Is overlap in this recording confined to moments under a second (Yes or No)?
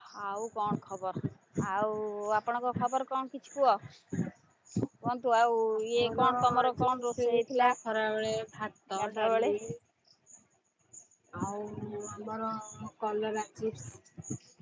No